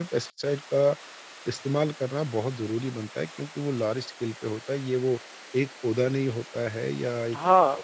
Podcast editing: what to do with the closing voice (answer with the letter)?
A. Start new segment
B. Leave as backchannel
A